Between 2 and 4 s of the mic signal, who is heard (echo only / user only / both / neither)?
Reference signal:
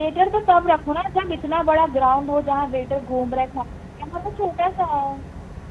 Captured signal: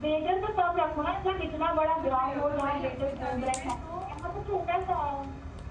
both